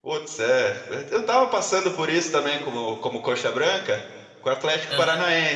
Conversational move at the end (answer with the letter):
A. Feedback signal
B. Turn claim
A